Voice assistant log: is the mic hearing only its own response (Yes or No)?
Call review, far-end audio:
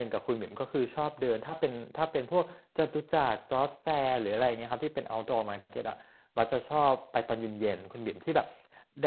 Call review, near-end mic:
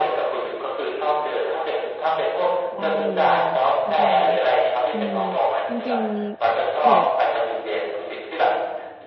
No